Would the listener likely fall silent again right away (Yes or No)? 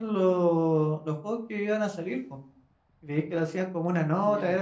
Yes